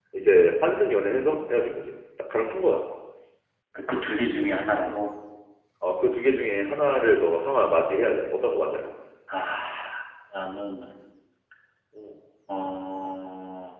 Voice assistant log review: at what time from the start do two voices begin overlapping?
none

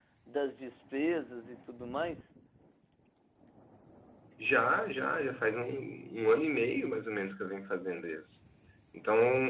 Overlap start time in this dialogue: none

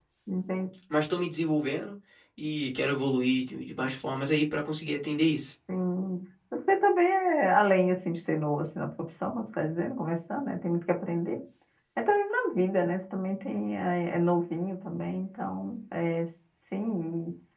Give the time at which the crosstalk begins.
none

